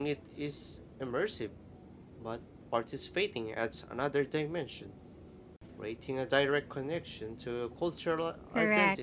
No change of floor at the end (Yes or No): No